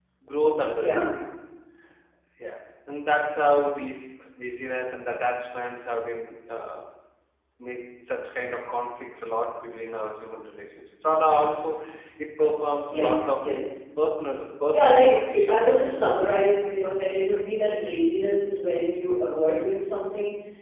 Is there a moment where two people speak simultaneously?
Yes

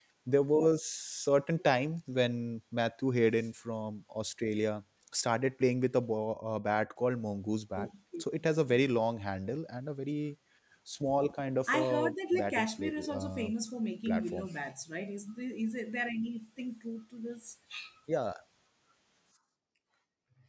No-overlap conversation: No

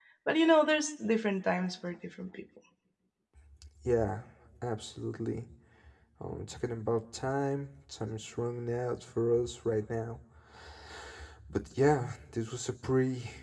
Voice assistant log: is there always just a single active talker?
Yes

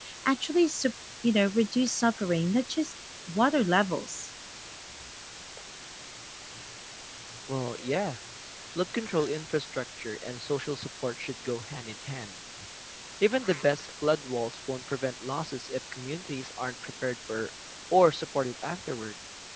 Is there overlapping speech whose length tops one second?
No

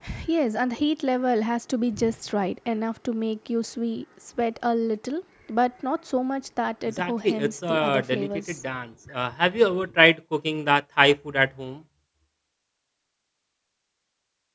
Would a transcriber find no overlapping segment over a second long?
No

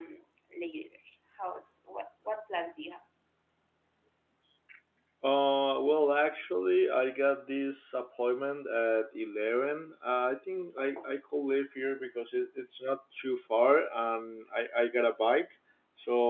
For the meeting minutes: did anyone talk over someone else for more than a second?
No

